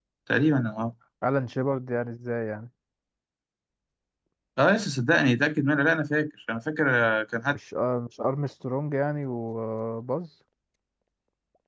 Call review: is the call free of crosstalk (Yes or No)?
Yes